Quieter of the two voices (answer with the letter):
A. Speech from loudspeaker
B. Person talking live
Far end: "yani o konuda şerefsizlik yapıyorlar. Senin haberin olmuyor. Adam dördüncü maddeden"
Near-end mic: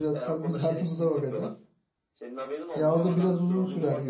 A